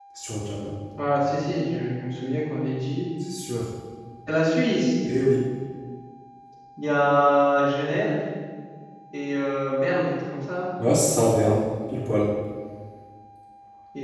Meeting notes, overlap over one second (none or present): none